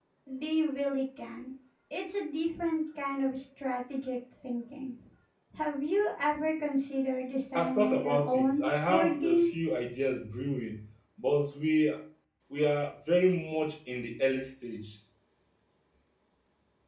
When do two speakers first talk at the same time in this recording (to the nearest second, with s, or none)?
8 s